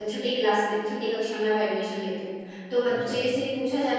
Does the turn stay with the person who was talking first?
Yes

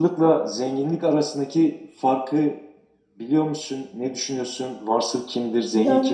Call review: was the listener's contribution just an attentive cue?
No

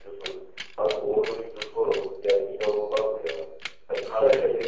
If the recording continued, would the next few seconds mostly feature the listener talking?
No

